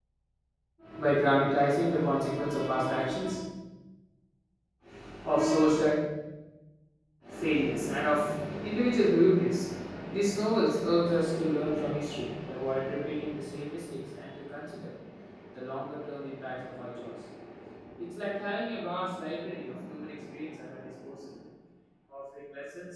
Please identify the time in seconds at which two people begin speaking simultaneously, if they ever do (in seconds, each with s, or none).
none